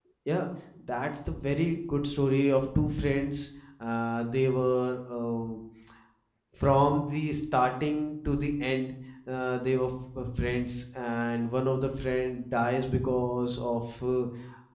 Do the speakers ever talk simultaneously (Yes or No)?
No